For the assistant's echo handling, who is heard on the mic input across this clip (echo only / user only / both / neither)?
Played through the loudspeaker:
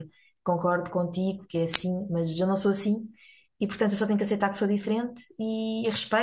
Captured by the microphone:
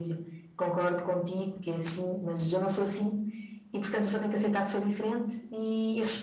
echo only